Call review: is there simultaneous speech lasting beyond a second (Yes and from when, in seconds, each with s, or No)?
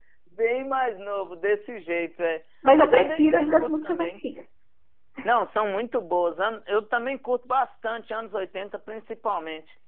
Yes, from 2.6 s